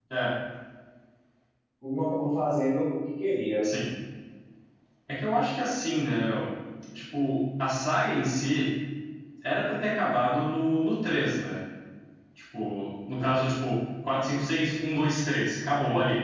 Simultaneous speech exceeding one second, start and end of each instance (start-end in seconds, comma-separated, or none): none